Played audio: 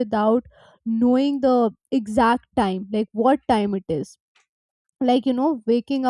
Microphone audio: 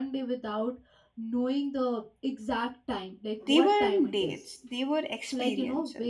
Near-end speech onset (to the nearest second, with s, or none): 3 s